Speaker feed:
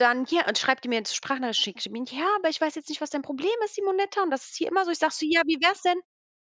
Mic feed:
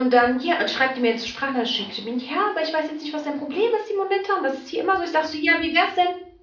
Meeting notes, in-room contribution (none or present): none